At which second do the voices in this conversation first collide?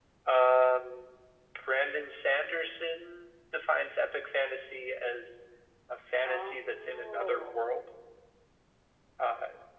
6 s

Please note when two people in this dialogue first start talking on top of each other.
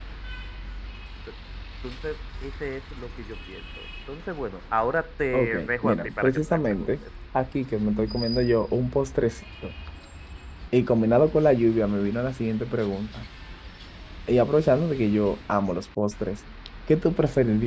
5 s

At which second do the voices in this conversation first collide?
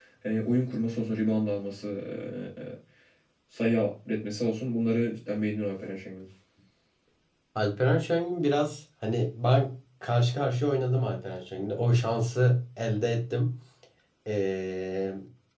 none

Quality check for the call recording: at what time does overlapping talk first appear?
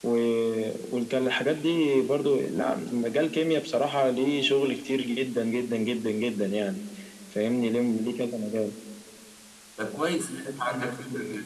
none

